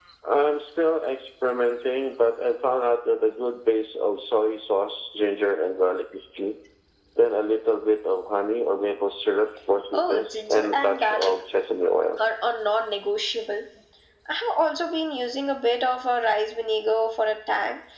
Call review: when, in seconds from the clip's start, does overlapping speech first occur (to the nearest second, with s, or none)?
10 s